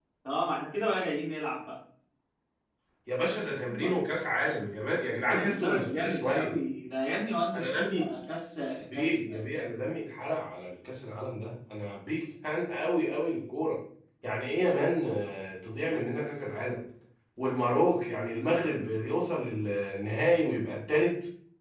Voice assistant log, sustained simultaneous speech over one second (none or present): present